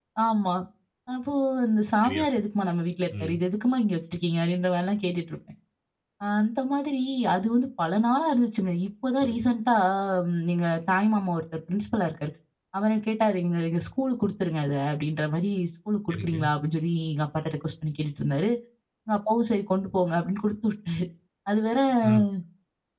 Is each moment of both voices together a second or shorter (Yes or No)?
Yes